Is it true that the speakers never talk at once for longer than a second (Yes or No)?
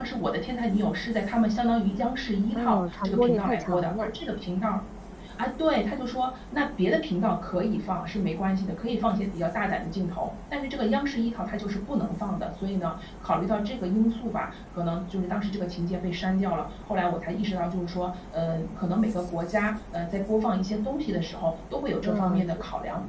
No